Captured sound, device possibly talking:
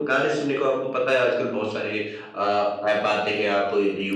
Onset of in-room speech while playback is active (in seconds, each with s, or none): none